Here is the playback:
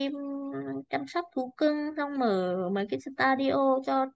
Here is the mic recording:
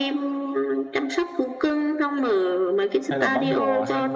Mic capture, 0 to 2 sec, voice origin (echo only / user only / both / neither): echo only